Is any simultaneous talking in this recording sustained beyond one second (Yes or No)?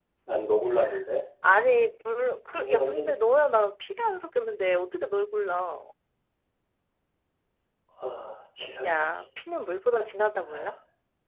No